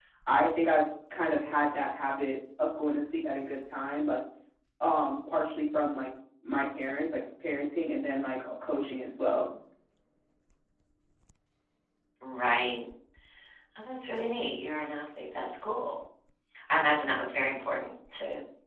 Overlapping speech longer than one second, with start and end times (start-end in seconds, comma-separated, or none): none